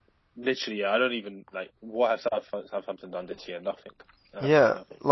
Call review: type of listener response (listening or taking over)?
taking over